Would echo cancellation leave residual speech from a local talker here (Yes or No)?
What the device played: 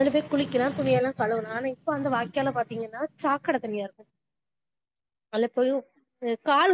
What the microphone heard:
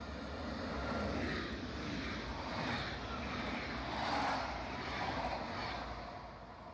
No